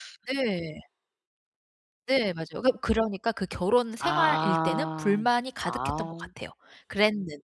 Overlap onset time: 4.0 s

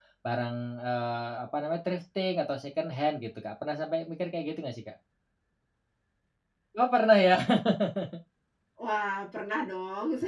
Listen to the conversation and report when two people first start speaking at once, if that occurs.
none

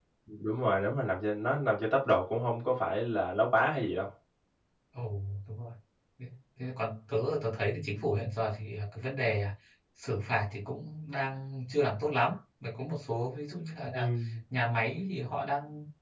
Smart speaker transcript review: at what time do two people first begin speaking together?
none

